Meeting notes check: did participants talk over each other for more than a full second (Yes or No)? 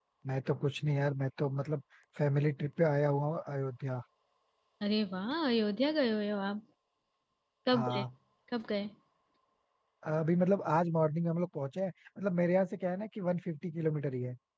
No